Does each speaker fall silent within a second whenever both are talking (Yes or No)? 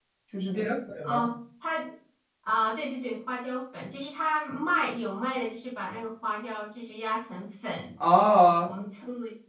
Yes